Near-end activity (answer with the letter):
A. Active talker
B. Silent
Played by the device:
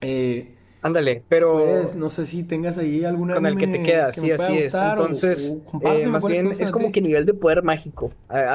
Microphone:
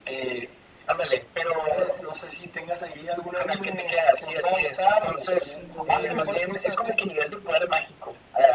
A